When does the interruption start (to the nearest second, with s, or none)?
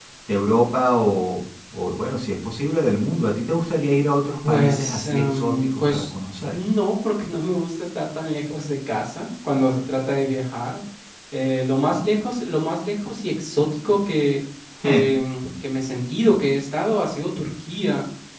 4 s